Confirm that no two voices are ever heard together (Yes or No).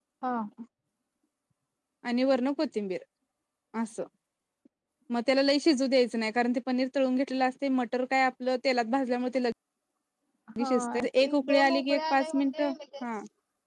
No